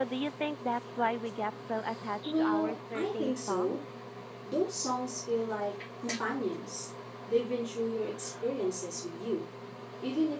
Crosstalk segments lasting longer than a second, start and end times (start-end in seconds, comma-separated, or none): 2.2-3.8